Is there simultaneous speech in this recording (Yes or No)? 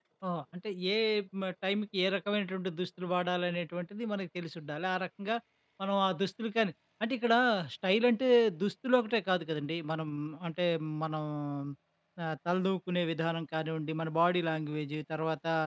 No